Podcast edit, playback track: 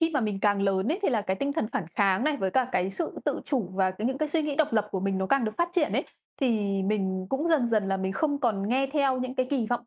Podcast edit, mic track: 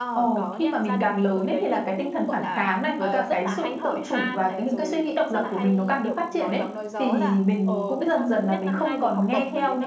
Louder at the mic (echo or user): echo